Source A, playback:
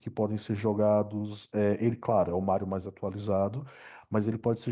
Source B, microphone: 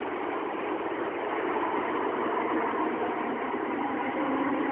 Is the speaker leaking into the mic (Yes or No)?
No